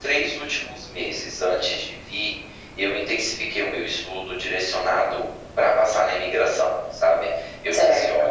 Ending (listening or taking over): listening